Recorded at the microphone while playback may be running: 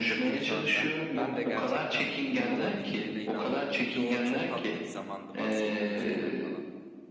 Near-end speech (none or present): present